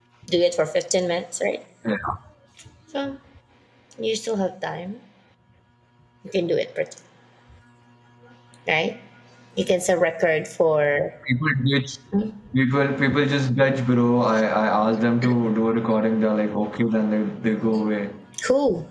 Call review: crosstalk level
none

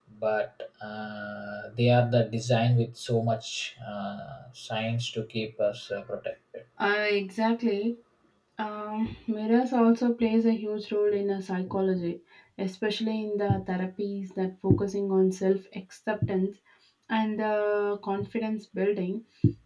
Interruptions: none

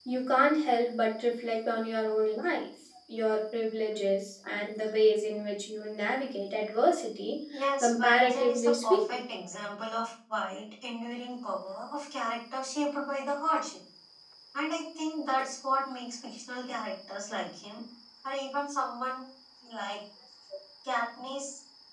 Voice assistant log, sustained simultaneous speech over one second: present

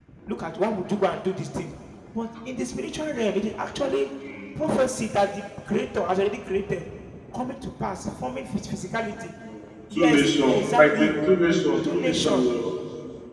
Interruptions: present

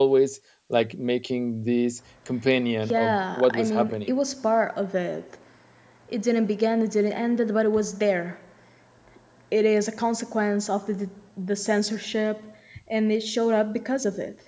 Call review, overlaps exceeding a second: present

